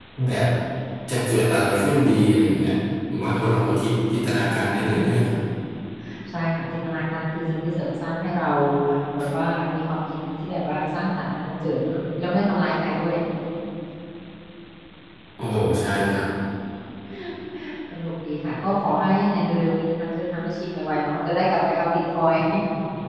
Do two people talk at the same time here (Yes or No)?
No